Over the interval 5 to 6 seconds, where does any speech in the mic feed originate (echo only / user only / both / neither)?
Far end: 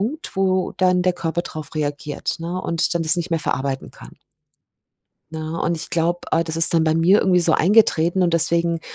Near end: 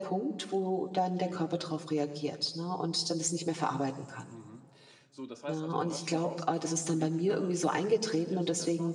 both